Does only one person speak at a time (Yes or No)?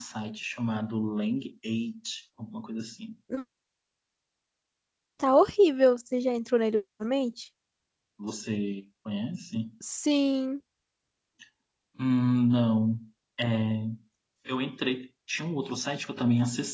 Yes